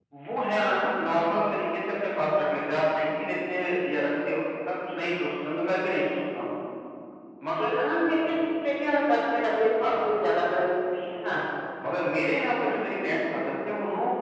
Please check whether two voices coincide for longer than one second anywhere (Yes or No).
No